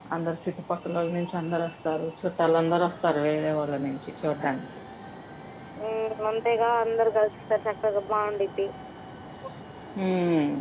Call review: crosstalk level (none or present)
none